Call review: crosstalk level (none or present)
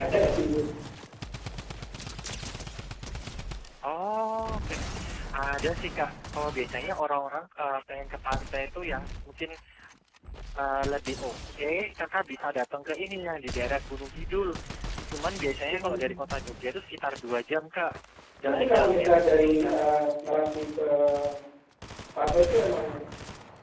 present